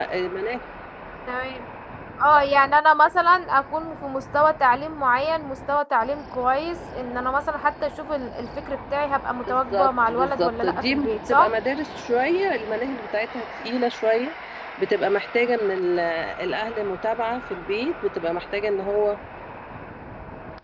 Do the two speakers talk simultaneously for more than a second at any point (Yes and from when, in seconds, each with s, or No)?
Yes, from 9.5 s